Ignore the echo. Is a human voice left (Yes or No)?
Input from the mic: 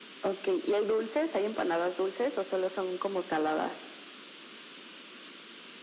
No